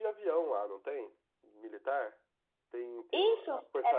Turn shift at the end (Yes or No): Yes